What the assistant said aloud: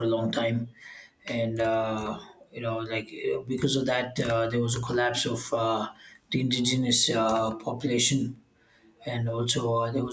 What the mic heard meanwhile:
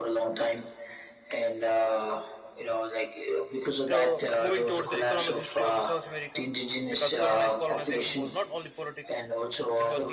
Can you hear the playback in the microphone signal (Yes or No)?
Yes